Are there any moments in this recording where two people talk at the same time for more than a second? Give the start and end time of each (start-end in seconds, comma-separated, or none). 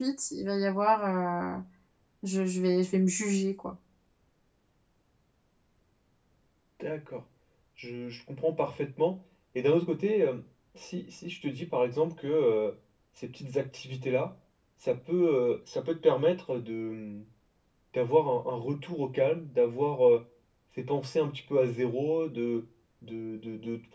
none